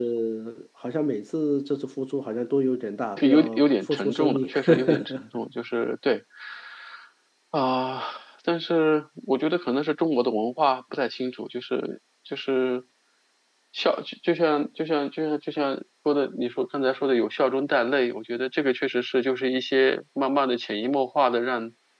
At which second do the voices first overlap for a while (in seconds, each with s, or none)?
3.2 s